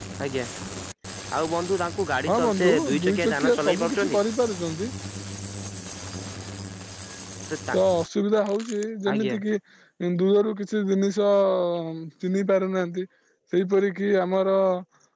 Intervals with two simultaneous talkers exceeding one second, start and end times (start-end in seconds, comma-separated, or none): 2.3-4.2